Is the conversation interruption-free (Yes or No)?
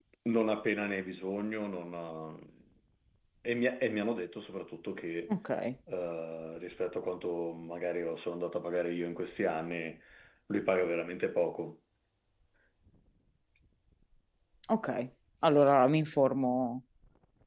Yes